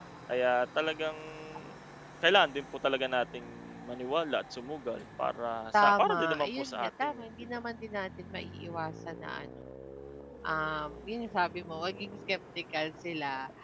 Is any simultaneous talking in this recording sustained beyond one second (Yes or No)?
Yes